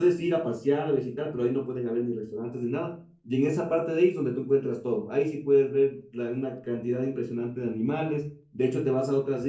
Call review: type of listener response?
listening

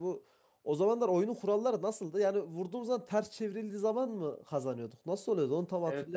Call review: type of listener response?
taking over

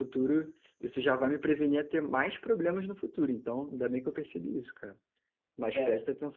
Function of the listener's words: listening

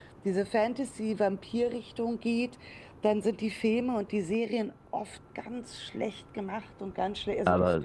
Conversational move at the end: listening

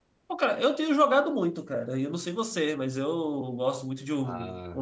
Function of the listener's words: listening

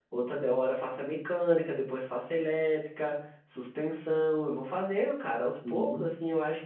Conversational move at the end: listening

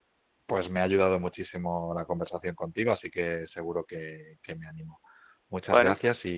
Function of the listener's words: listening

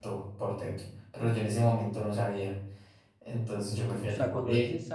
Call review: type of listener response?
taking over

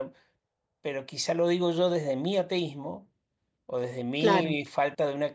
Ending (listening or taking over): listening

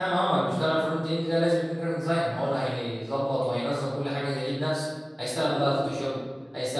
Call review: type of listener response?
listening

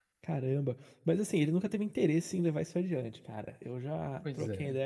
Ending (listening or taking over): listening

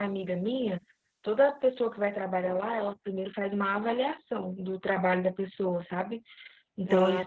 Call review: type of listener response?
listening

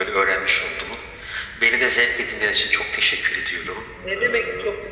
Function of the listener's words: taking over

